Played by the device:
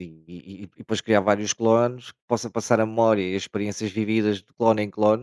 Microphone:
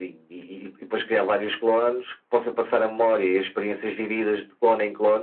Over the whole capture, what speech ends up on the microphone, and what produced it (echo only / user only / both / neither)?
echo only